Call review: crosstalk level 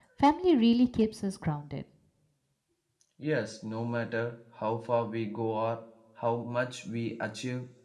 none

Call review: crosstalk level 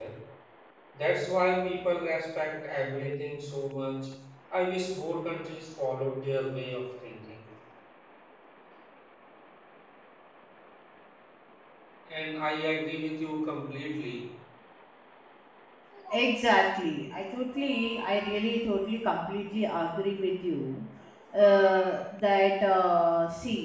none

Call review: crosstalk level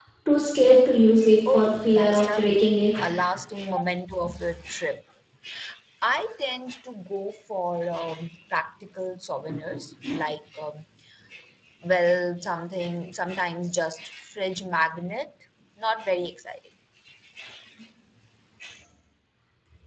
present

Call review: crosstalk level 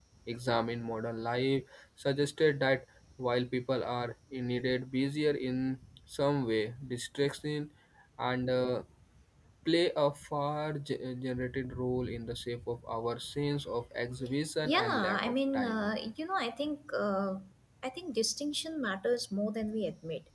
present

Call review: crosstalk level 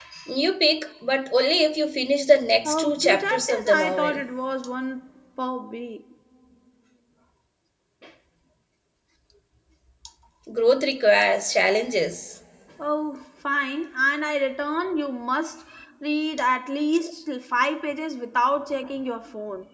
present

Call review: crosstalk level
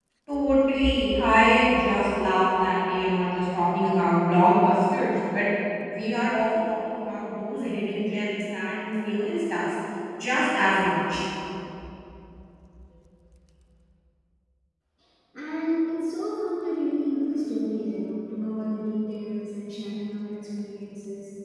none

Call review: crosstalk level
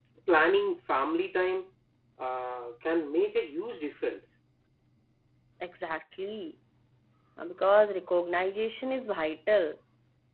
none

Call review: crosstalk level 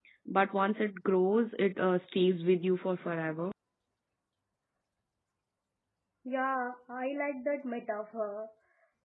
none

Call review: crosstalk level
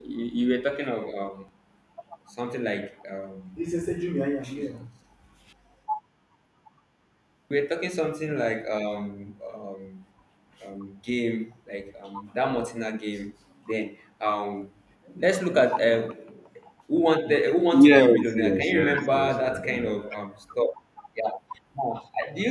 present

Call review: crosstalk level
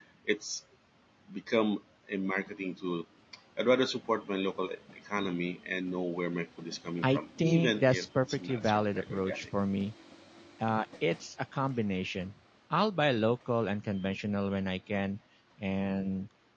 present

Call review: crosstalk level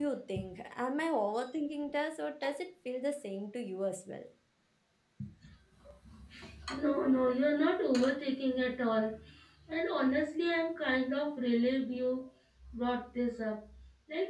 none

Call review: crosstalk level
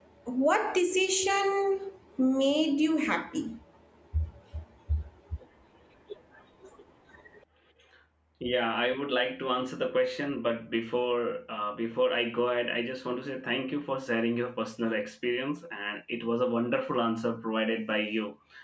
none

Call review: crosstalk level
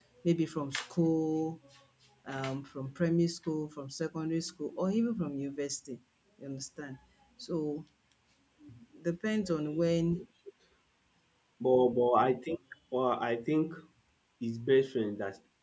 none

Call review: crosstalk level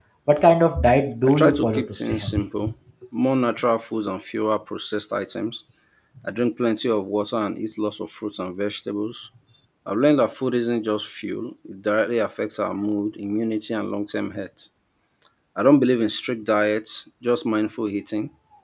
present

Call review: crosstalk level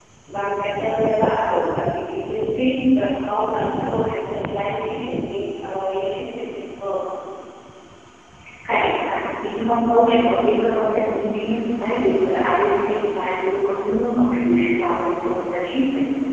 none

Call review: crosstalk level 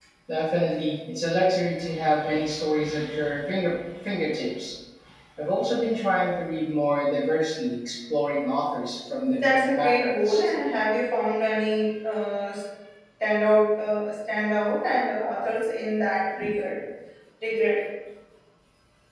present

